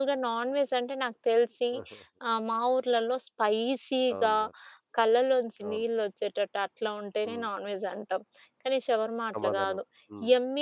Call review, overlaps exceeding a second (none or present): none